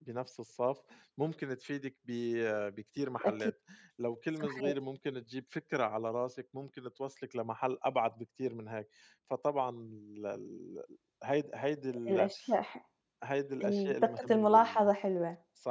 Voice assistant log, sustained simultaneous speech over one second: present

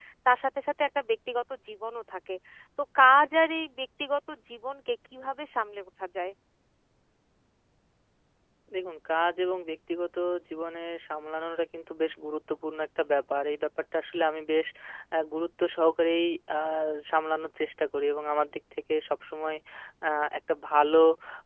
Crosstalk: none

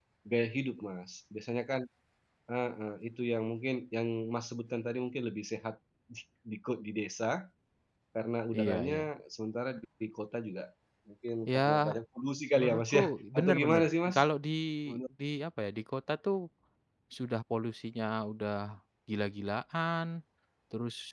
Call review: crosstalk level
present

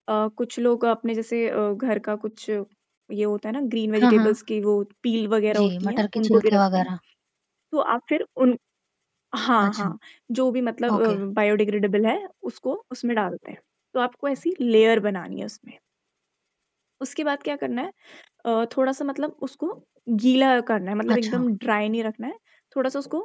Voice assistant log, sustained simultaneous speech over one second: present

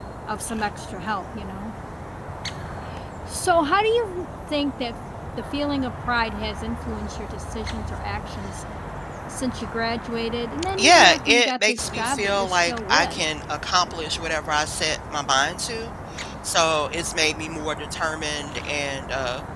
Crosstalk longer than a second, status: present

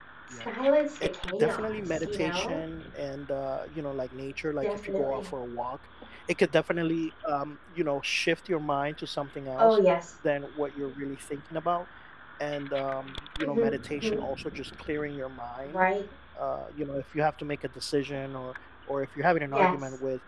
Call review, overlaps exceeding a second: present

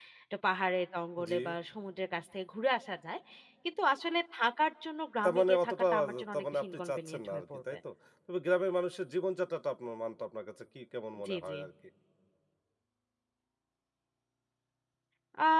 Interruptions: present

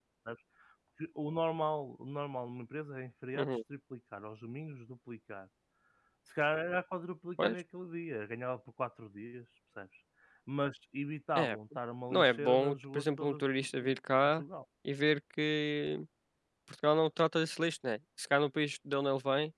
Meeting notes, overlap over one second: present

